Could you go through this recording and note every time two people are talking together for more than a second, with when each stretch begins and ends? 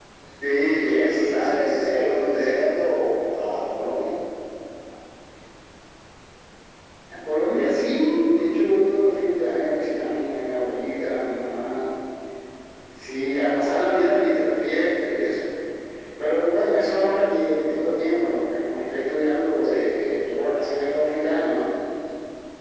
0.6-2.6

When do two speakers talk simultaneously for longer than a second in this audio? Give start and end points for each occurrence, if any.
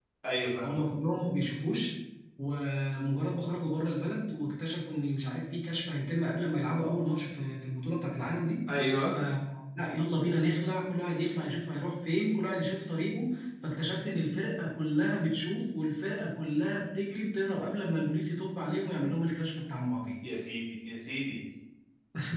none

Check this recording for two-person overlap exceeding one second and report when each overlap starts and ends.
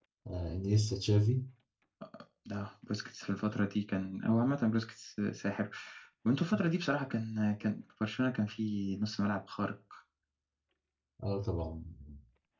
none

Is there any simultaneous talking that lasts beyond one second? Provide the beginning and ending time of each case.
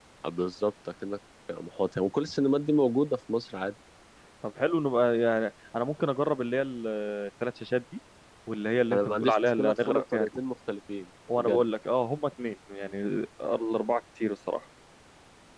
8.9-10.3

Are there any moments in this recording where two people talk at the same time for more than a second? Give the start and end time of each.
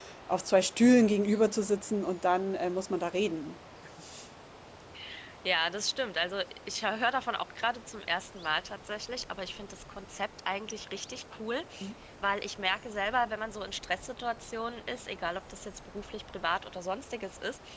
none

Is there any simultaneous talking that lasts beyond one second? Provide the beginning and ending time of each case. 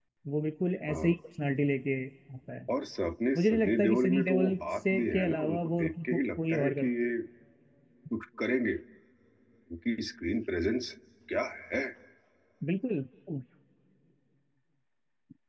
3.4-6.9

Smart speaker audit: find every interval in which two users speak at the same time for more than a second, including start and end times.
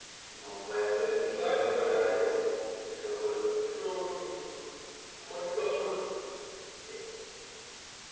1.0-2.2

